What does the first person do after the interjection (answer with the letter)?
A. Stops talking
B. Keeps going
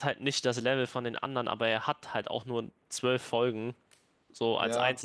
A